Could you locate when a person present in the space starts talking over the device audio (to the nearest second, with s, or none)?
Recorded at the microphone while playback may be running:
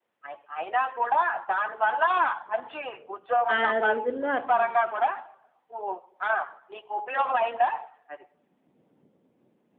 4 s